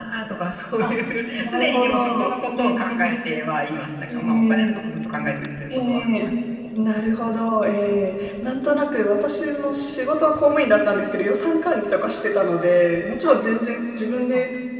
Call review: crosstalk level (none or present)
present